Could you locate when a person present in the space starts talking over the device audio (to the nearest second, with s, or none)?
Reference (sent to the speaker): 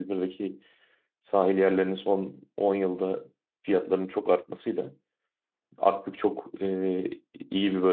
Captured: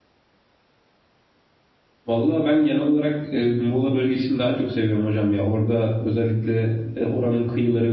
2 s